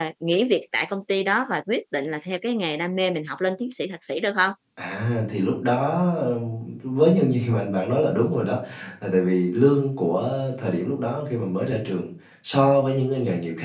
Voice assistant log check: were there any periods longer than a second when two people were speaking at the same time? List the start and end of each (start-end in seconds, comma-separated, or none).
none